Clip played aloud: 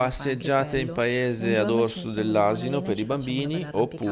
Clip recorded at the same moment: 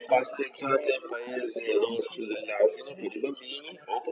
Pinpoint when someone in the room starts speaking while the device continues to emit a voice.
none

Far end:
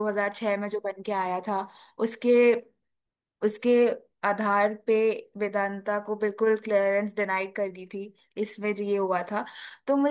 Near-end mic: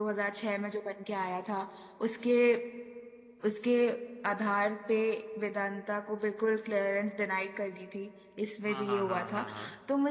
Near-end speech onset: 8.7 s

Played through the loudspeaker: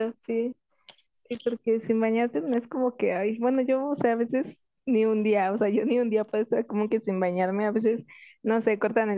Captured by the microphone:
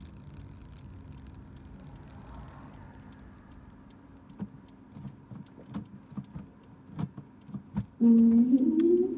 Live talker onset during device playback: 8.0 s

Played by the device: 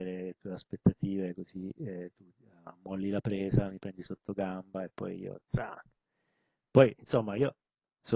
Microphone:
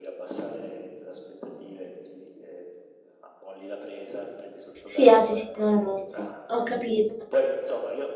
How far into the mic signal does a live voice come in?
4.8 s

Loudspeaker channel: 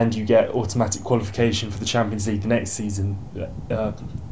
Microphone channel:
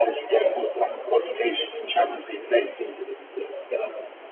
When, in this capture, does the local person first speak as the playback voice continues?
none

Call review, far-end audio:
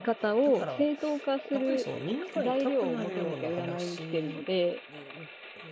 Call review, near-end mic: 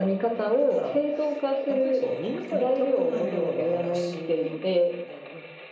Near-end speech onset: none

